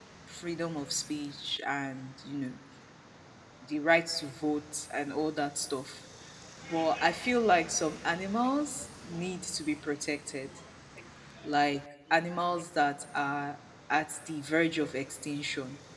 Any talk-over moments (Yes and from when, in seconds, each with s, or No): No